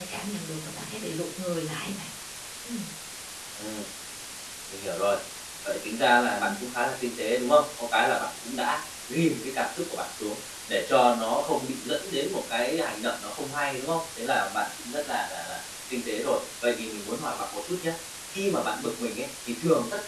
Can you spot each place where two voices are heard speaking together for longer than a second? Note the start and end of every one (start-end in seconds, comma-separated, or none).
none